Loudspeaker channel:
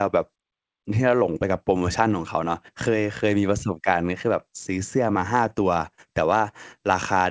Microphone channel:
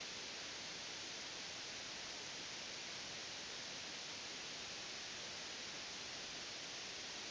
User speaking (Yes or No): No